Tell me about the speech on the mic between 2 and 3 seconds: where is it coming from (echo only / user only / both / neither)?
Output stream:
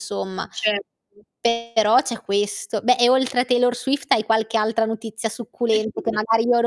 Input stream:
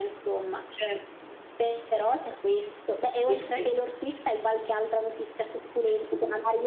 echo only